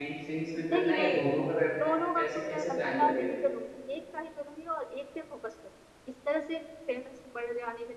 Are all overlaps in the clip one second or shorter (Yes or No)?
No